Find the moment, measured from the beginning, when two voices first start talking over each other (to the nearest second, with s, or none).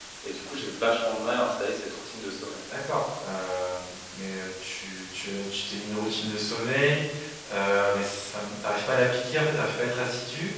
none